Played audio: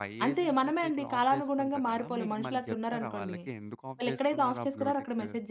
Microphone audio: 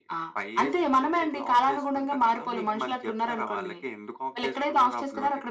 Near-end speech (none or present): none